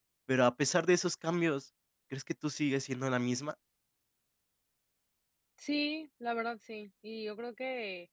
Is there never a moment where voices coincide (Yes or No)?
Yes